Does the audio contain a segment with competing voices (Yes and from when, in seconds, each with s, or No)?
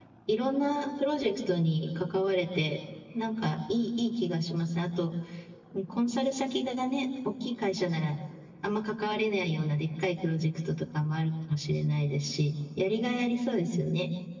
No